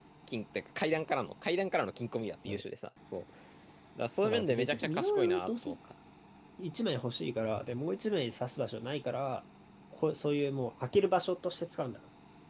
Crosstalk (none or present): present